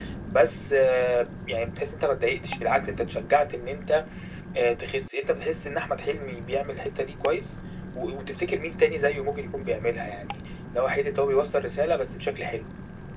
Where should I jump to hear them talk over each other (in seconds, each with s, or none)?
none